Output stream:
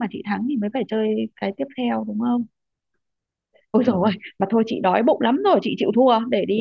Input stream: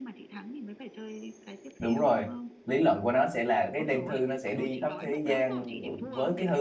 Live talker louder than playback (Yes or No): Yes